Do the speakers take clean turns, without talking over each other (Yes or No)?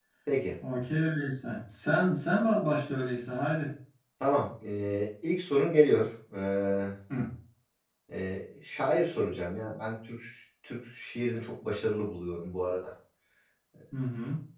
Yes